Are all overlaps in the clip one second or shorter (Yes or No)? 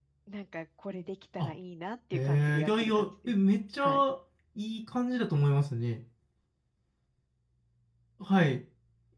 No